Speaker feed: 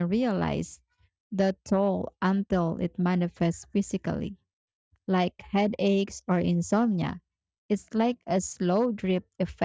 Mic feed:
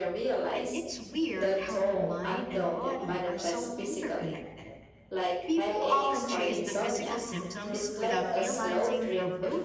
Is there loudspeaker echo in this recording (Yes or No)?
Yes